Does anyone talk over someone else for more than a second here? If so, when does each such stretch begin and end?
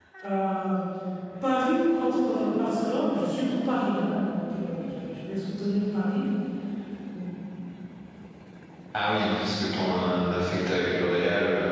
none

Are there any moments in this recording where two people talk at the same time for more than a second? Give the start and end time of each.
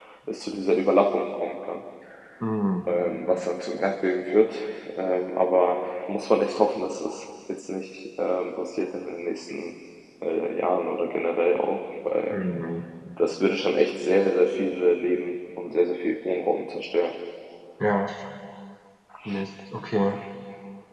none

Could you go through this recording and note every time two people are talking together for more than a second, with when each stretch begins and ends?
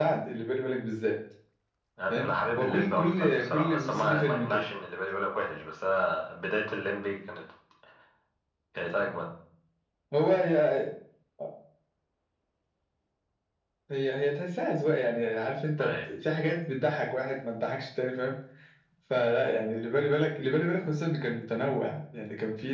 2.1-4.6

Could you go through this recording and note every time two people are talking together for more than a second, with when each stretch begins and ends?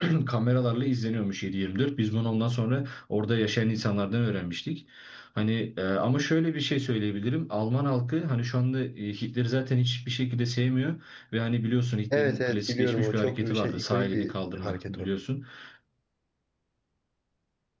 12.1-15.1

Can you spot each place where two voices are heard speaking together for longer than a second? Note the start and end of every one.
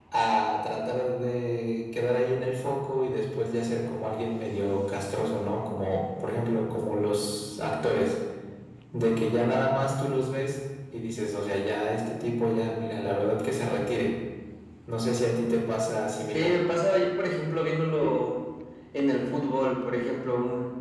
none

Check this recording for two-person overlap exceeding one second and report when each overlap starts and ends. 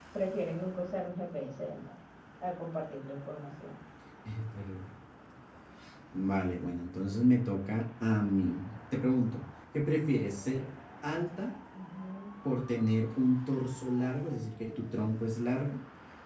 none

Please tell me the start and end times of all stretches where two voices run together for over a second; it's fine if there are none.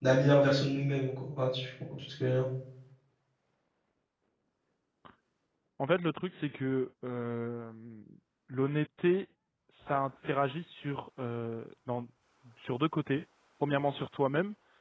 none

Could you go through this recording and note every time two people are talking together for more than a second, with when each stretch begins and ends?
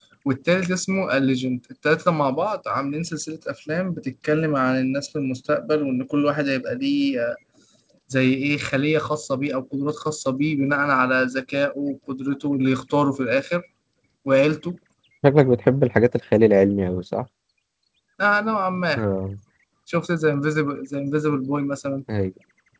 none

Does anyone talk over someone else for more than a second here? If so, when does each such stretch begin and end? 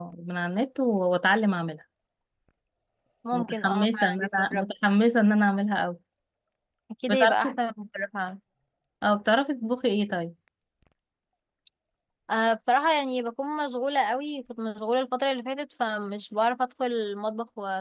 3.3-4.6

